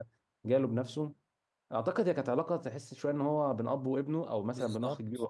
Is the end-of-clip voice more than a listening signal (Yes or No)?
Yes